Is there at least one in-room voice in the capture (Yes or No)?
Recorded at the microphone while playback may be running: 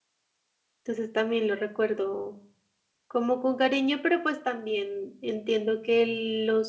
Yes